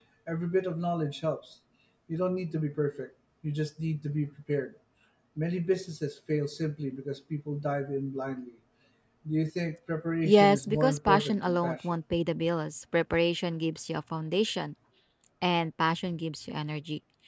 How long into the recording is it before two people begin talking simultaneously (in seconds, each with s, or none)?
10.2 s